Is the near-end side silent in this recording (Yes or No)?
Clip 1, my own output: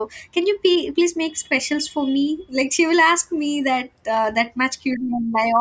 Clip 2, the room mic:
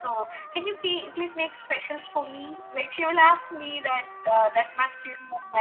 Yes